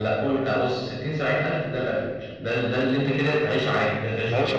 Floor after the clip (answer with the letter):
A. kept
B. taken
B